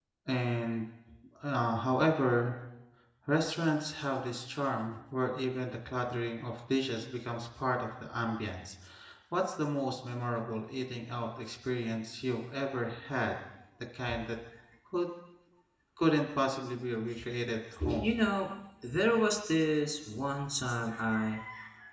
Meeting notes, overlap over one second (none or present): none